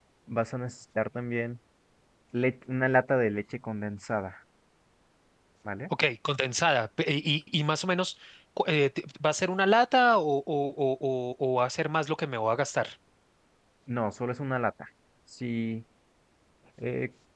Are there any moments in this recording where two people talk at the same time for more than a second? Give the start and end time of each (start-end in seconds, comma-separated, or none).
none